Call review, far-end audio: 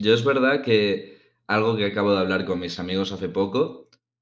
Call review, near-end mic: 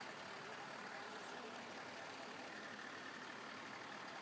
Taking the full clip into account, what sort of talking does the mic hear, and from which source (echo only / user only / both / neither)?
neither